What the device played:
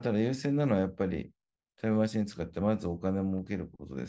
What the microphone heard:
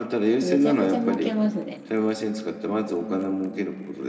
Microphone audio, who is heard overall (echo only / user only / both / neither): both